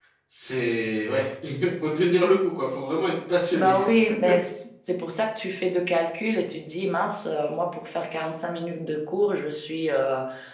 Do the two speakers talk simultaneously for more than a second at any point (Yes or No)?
No